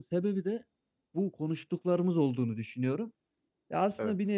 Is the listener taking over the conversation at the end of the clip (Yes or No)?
No